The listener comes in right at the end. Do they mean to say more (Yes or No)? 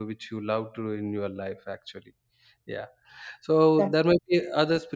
No